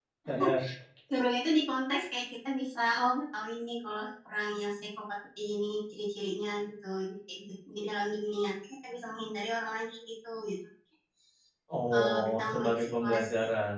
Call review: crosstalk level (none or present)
present